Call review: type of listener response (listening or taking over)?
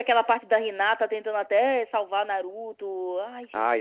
taking over